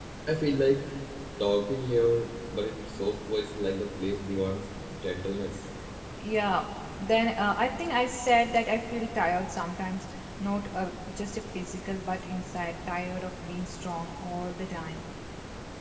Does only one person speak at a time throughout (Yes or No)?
Yes